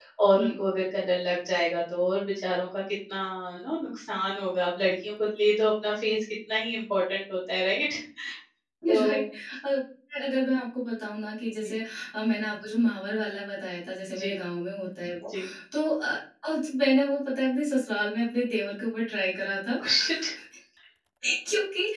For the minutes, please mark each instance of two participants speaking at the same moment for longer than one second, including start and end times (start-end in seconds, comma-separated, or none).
none